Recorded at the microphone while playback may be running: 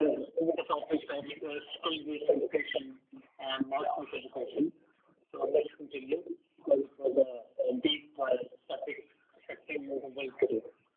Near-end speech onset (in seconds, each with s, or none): none